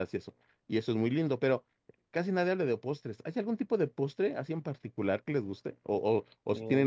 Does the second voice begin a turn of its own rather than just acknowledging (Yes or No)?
No